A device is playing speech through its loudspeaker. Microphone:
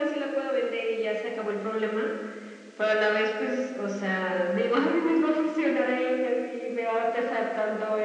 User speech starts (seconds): none

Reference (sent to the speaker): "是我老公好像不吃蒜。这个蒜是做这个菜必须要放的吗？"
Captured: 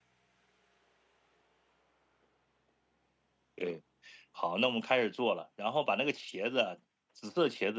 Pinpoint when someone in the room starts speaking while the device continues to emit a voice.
3.6 s

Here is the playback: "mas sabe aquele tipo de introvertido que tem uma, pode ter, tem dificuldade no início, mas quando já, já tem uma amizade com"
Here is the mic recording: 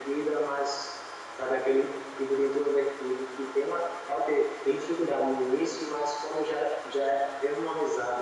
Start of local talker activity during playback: none

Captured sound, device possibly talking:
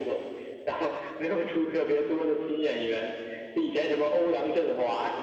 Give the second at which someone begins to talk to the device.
none

